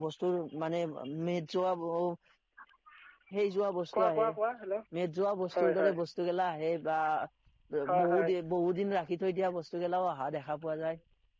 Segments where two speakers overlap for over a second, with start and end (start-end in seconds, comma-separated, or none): none